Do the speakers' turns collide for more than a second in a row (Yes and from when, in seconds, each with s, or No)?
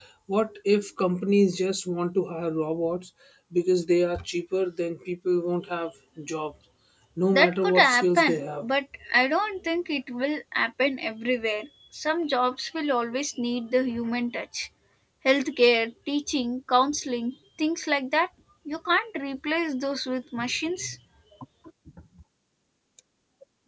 Yes, from 7.3 s